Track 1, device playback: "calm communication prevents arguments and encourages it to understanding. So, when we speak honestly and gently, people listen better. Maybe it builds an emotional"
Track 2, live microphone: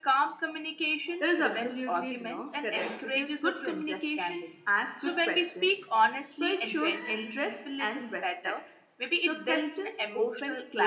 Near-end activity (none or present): present